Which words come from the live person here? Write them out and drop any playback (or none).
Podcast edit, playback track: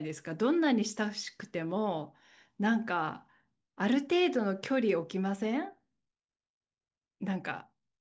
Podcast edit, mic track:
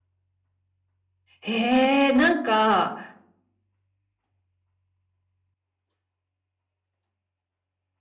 へえ、なんか、